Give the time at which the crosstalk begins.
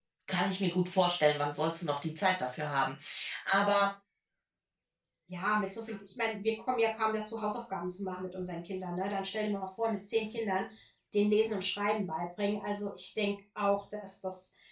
none

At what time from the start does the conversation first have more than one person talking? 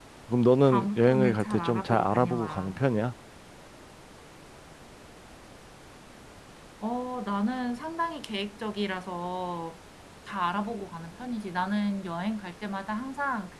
0.6 s

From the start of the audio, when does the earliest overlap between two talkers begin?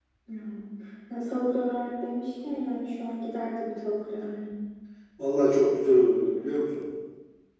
none

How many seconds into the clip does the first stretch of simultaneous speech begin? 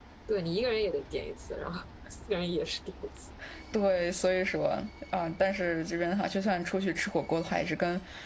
none

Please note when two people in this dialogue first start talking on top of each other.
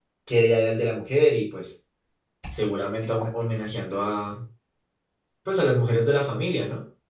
none

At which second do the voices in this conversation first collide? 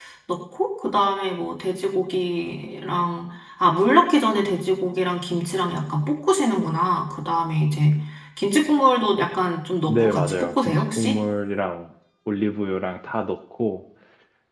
9.9 s

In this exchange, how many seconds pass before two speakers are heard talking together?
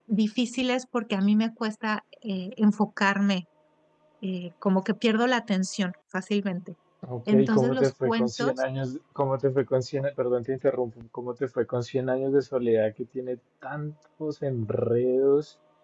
7.3 s

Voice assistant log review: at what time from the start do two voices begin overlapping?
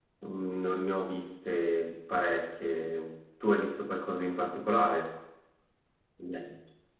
none

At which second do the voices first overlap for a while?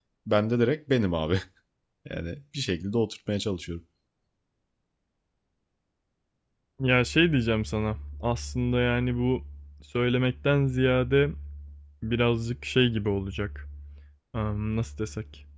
none

